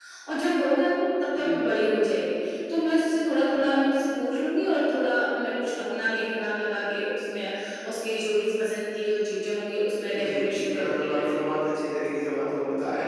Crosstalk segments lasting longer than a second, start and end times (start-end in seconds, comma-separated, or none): 10.1-11.4